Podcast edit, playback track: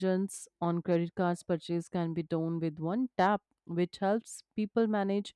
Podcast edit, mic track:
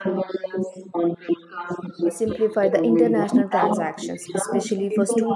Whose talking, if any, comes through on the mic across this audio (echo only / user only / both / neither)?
both